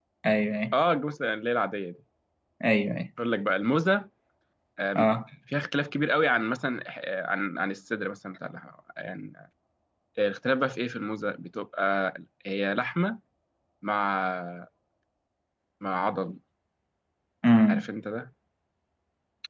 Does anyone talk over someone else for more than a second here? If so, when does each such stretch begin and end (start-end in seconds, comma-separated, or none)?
none